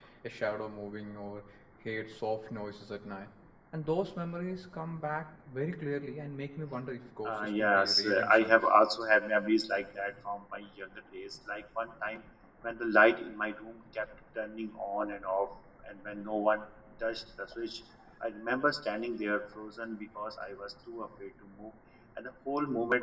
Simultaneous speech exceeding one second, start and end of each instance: 7.2-8.5

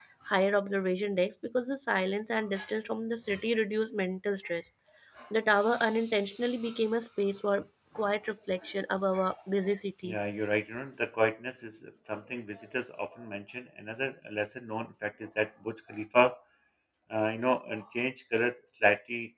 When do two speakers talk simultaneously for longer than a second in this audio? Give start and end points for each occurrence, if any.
none

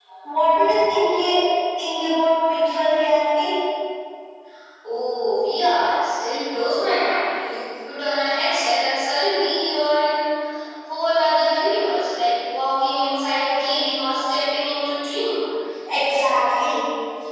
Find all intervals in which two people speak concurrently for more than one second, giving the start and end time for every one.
none

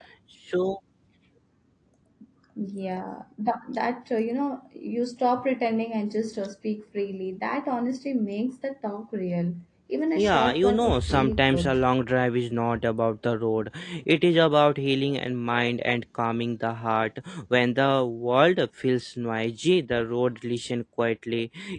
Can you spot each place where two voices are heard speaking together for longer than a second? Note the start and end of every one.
10.2-11.8

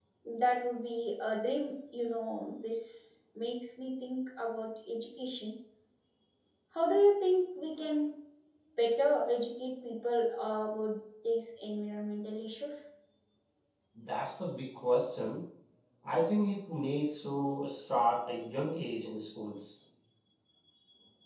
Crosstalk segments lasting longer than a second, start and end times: none

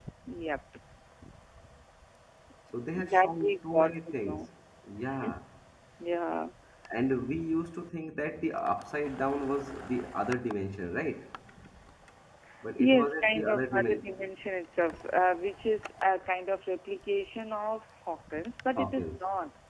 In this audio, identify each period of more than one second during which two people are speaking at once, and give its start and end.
2.9-4.4, 12.8-14.0

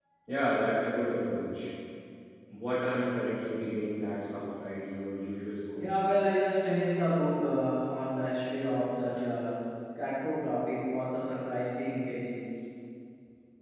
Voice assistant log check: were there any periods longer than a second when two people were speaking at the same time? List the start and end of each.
none

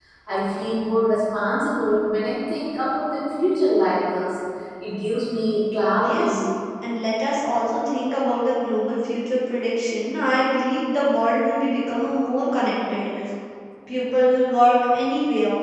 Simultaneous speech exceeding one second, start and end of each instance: none

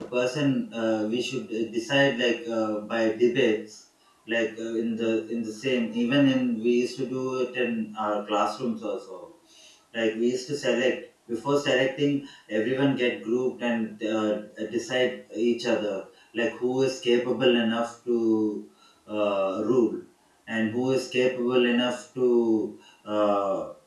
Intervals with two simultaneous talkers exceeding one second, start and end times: none

